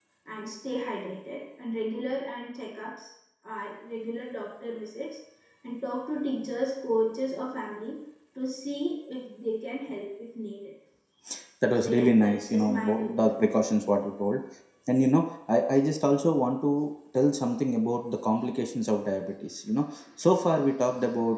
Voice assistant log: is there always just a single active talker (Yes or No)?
No